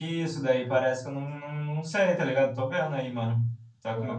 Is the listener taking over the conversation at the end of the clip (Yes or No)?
No